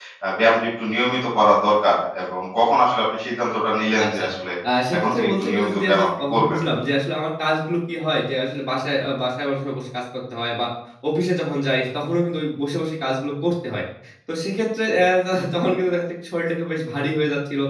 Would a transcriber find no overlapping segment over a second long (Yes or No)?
No